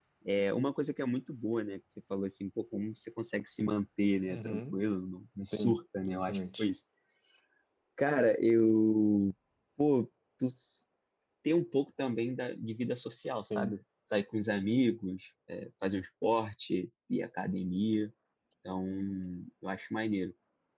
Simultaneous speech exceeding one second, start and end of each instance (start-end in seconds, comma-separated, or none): 5.4-6.6